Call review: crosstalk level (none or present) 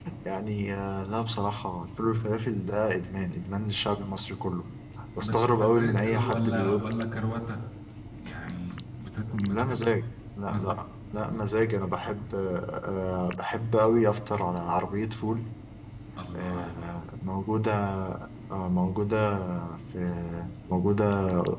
present